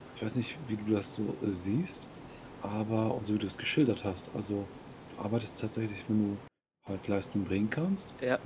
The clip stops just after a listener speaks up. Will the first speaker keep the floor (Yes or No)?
Yes